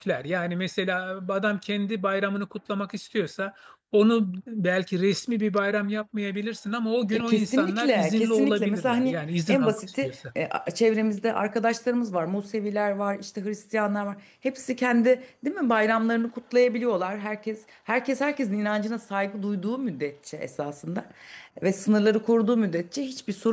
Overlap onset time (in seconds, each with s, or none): 7.1 s